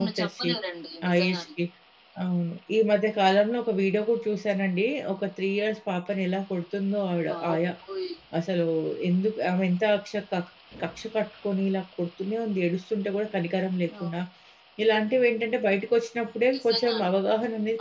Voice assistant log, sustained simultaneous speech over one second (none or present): none